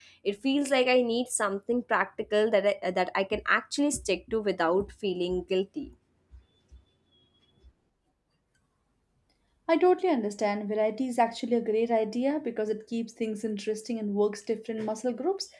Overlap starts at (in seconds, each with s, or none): none